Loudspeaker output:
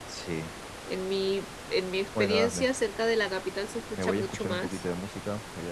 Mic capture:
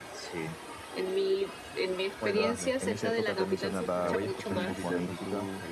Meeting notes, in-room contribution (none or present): present